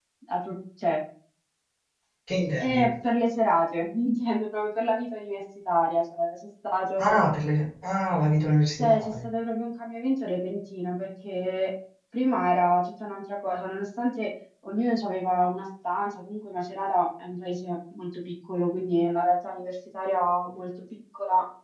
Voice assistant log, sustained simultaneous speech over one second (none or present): none